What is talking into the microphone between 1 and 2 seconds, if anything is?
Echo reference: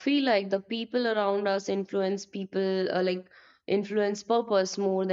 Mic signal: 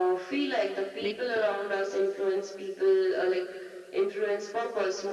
both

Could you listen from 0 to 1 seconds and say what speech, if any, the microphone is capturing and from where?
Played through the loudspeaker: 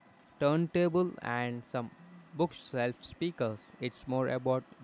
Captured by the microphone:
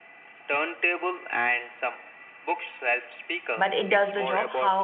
echo only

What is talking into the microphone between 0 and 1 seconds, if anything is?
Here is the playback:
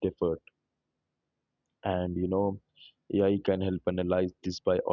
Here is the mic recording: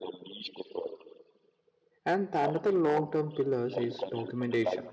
echo only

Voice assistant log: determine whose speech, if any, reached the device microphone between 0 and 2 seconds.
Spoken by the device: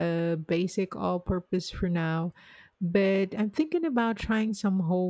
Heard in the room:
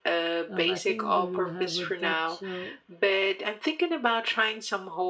both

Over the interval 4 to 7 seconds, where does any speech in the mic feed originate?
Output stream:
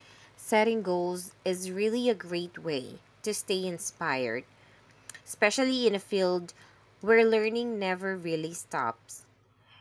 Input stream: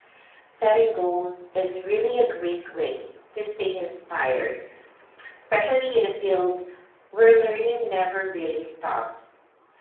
echo only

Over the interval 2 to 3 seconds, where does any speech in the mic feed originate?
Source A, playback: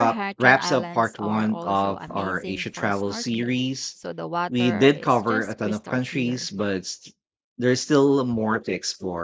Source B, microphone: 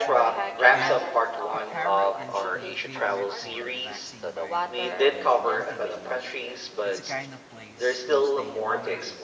both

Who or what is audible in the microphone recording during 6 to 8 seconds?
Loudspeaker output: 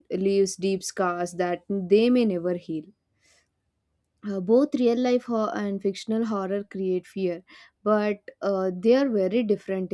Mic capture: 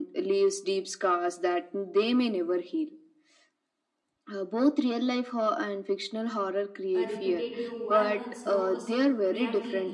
both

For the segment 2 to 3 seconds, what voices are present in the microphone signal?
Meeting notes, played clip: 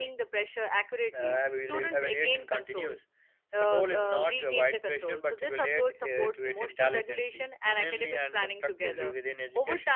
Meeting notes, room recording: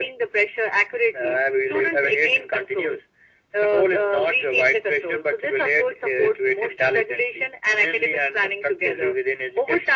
echo only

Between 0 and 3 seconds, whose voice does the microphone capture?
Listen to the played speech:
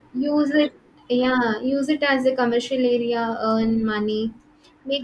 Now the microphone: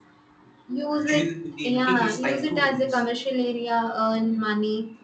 both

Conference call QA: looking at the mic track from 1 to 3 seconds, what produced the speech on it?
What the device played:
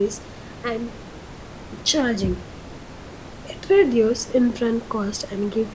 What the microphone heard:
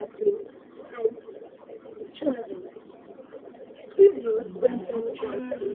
echo only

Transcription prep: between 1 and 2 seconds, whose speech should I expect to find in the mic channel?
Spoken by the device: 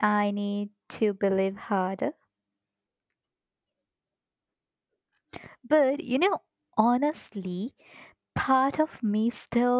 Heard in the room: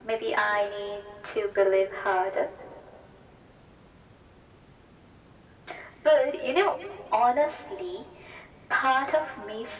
echo only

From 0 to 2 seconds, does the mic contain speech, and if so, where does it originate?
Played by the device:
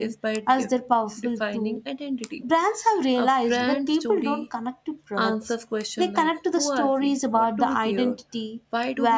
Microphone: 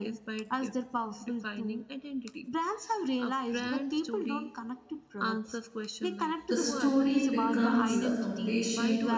echo only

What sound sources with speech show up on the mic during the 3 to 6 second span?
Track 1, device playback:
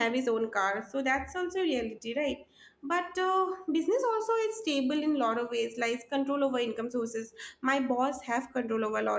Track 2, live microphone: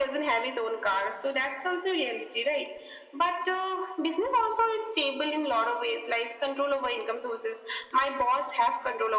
echo only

